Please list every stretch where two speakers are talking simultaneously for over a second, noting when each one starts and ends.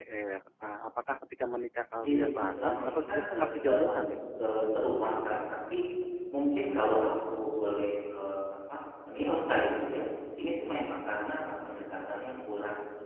2.0-4.1

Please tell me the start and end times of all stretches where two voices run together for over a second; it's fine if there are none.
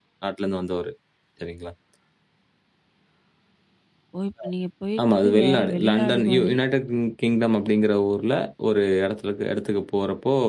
5.1-6.6

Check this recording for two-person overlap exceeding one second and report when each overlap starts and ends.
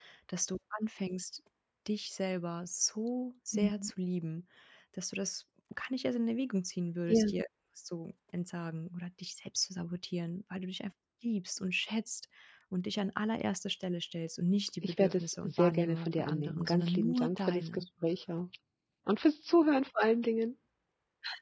14.8-17.8

